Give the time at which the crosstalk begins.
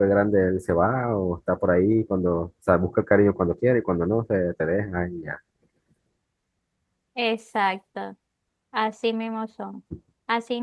none

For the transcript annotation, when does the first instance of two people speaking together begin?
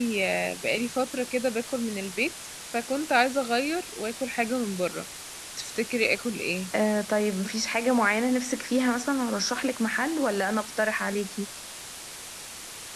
none

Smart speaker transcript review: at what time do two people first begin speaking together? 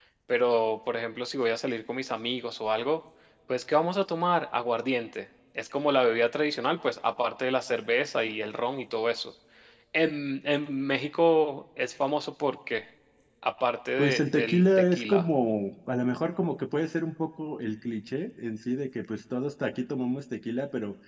14.0 s

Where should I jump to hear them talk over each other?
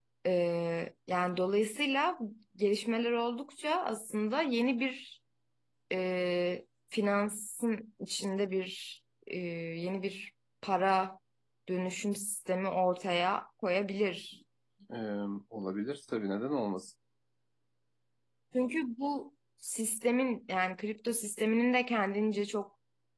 none

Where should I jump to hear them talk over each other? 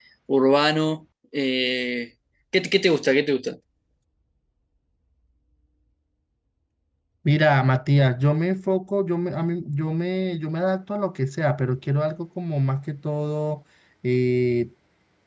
none

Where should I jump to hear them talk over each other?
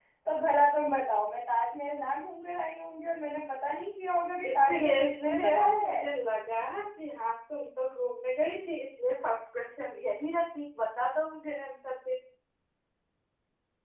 4.4 s

